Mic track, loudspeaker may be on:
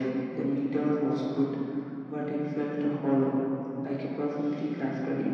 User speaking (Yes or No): No